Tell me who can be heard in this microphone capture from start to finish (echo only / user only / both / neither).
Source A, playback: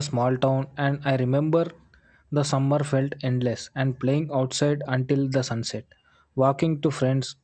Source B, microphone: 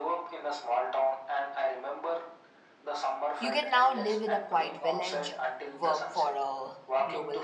both